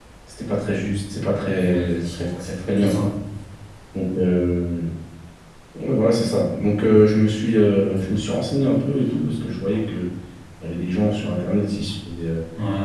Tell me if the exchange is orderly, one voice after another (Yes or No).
No